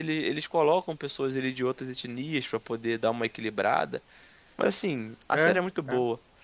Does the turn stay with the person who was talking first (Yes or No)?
Yes